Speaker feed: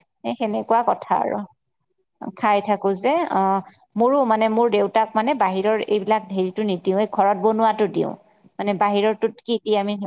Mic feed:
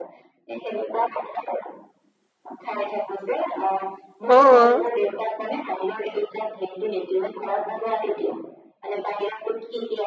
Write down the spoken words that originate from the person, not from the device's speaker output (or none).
অ',